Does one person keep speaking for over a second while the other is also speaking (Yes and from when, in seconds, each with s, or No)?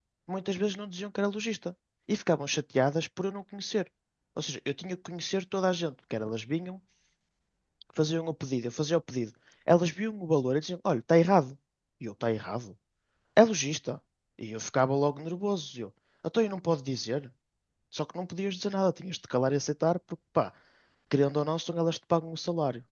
No